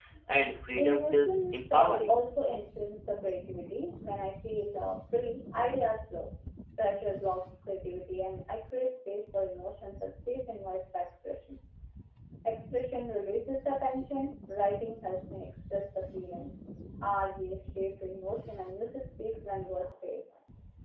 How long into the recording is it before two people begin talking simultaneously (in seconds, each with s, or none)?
0.7 s